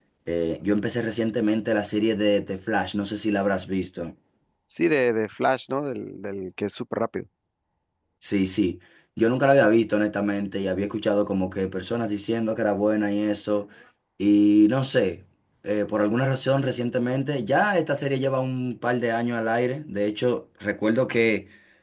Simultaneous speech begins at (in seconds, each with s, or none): none